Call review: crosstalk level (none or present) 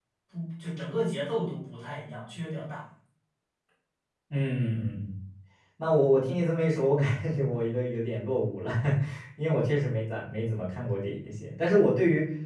none